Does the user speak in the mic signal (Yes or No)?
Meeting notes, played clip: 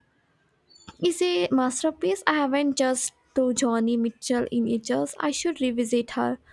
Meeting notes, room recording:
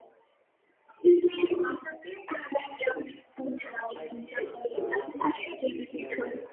Yes